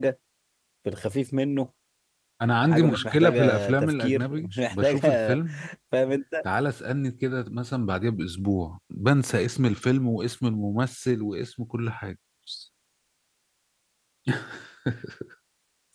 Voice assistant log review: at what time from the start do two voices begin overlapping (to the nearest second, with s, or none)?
3 s